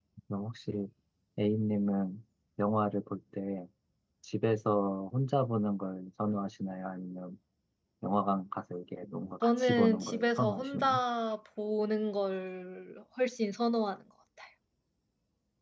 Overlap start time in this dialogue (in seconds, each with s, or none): 9.4 s